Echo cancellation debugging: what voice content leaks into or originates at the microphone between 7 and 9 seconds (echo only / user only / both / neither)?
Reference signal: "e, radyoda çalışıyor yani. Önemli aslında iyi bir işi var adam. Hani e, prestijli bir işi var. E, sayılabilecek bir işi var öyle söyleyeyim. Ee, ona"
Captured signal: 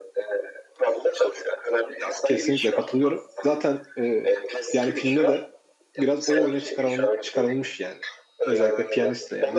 both